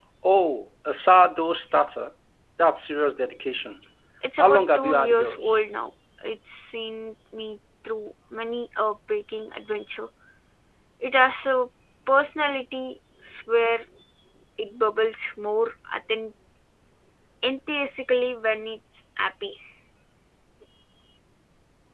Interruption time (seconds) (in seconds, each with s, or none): 4.4 s